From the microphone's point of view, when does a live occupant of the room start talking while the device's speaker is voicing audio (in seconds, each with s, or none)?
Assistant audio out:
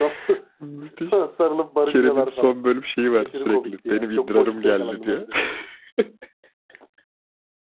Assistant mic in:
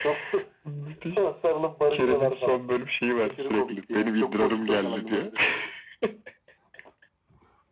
none